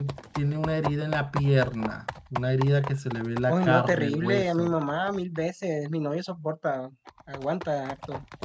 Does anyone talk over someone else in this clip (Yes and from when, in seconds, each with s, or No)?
Yes, from 3.5 s